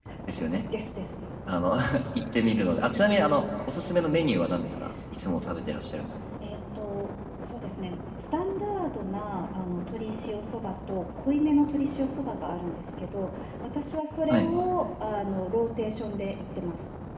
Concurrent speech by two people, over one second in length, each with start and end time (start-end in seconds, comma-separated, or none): none